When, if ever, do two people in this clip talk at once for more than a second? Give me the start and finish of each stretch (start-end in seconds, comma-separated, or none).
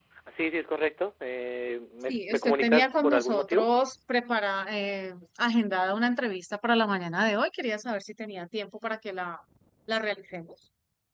2.1-3.6